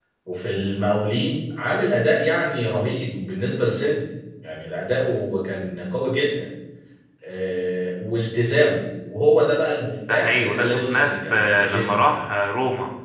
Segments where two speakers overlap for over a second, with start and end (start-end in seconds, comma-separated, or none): 10.1-12.2